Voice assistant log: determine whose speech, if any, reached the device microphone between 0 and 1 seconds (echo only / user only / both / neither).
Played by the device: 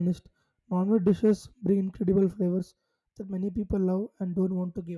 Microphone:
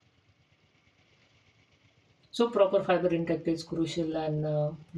neither